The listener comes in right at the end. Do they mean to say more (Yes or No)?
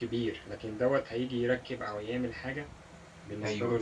Yes